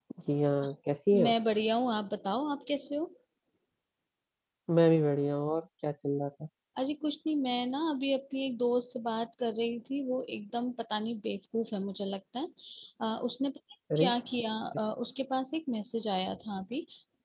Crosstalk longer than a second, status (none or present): none